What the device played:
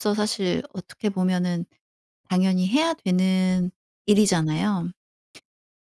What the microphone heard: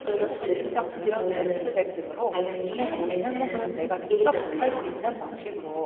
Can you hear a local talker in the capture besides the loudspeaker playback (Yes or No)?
Yes